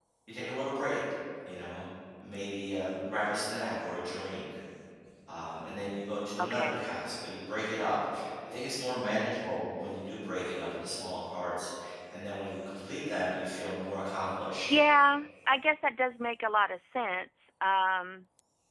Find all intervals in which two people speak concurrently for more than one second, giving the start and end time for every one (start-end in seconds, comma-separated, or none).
none